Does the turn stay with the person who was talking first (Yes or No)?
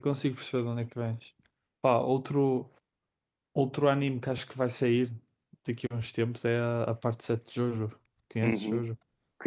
No